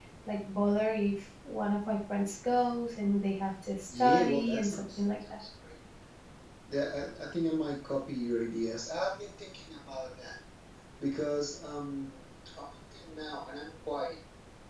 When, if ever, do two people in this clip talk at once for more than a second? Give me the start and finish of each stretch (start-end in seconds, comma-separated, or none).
4.0-5.4